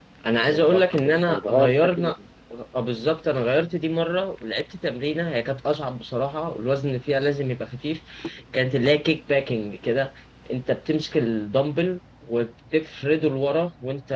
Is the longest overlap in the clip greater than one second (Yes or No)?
Yes